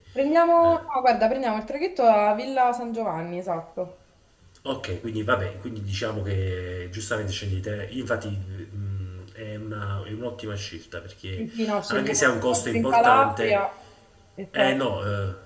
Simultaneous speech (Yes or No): Yes